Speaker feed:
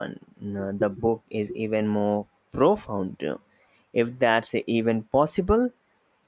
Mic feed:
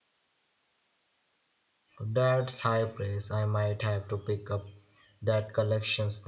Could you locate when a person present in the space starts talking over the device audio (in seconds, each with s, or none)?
2.0 s